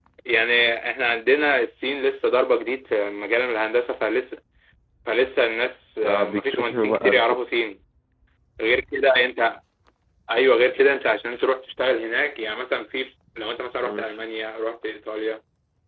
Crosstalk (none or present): present